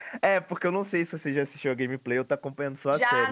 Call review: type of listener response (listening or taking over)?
taking over